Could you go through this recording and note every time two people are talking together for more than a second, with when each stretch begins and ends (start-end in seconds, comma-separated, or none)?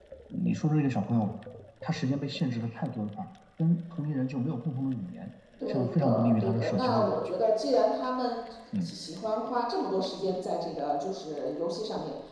5.7-7.4